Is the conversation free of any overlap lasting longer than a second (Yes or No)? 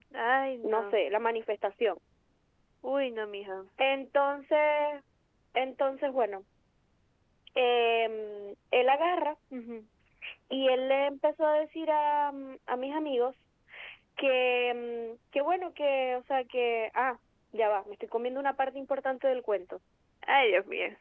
Yes